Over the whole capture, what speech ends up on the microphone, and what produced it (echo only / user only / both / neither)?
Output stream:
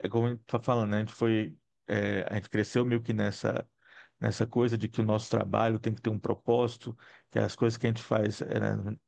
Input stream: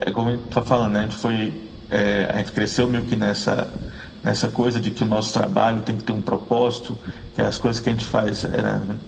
echo only